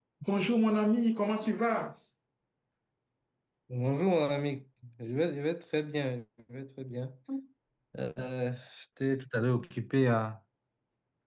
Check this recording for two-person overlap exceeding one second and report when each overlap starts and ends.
none

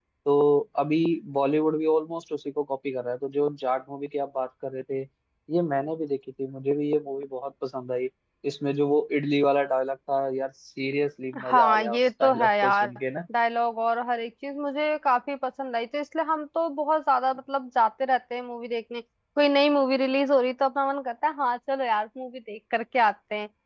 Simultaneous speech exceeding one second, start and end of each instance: 11.5-12.9

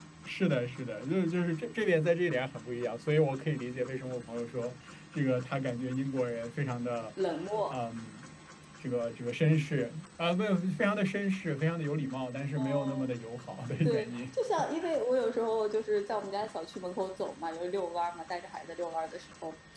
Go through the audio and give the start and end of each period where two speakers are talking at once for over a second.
none

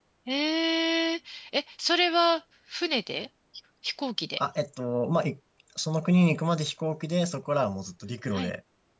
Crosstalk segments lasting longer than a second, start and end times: none

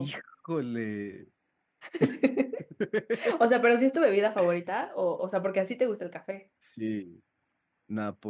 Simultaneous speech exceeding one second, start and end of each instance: none

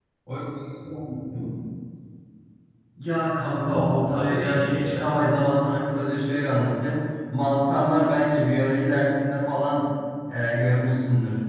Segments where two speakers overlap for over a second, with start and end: 3.6-5.2

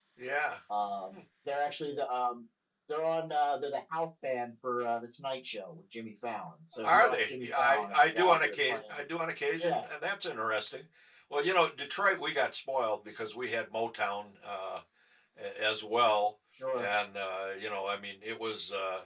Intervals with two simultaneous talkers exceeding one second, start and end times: 6.8-9.0

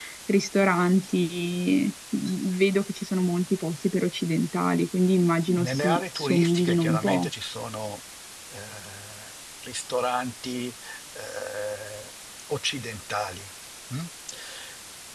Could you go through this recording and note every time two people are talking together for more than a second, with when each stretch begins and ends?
5.5-7.3

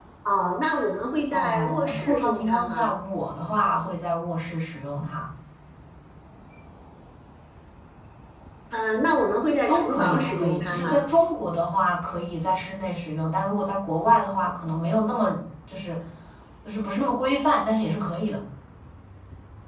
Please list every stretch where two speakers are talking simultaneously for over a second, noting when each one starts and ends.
1.3-2.9, 9.7-11.1

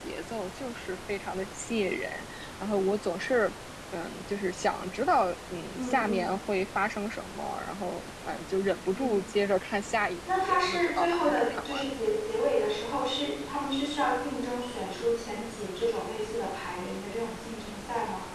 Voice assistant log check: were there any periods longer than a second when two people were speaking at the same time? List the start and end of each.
10.4-11.8

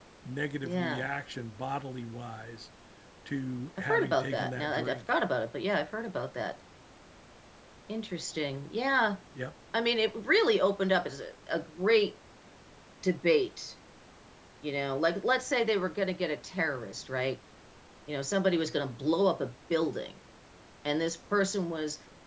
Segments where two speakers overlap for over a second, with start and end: 3.8-5.1

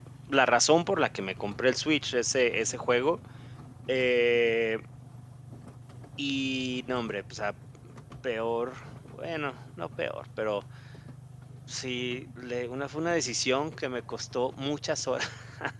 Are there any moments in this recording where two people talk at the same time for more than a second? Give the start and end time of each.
none

